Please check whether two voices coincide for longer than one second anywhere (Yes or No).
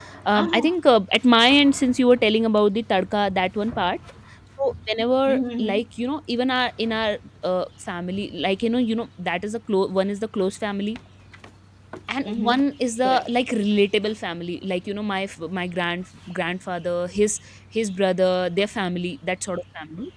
No